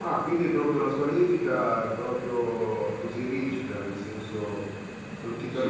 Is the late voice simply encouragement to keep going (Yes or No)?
No